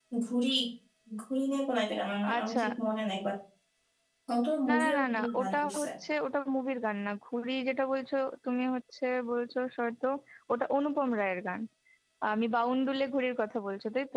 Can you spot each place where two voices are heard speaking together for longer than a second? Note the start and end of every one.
4.7-5.9

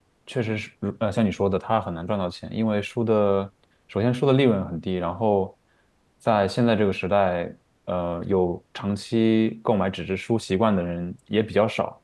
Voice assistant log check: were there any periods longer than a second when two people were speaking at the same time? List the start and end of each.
none

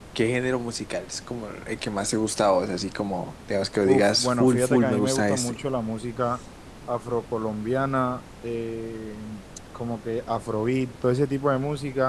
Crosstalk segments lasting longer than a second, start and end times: 3.8-5.6

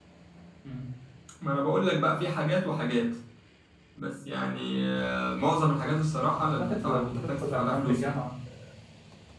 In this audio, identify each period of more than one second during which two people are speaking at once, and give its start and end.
6.3-8.2

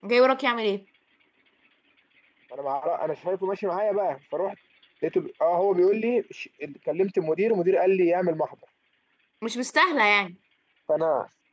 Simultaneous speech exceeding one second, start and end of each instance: none

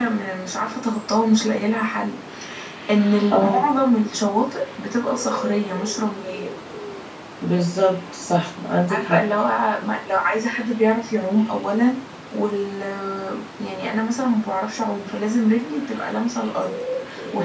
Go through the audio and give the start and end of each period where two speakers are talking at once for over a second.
none

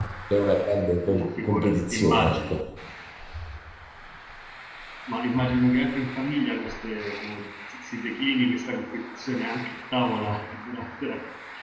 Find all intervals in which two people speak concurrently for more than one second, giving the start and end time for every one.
1.1-2.6

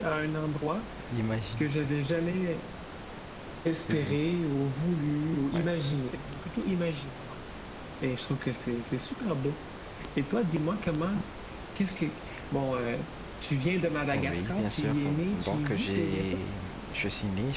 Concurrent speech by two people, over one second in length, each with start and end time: 14.1-16.4

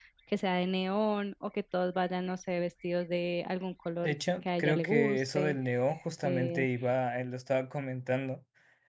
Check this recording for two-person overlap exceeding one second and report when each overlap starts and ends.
4.0-5.6

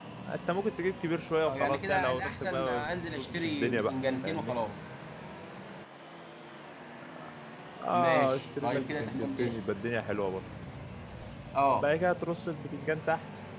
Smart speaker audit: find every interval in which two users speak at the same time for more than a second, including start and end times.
1.5-4.5, 7.9-9.6

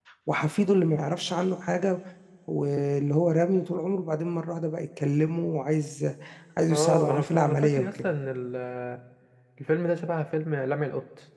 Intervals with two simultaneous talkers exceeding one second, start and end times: 6.7-8.1

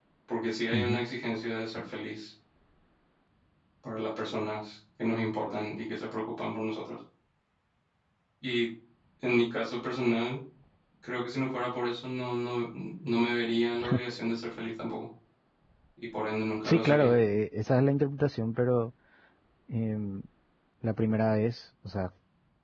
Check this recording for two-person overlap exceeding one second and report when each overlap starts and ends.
none

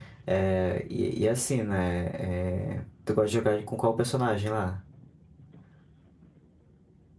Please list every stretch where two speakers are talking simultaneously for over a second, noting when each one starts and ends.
none

